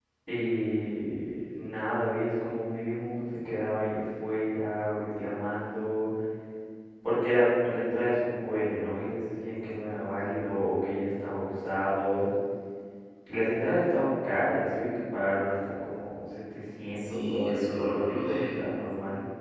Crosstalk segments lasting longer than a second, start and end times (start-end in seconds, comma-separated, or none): 16.9-18.5